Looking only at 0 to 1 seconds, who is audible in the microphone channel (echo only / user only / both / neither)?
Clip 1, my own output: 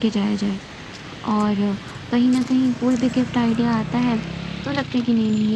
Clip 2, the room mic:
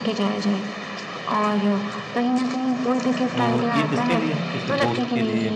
echo only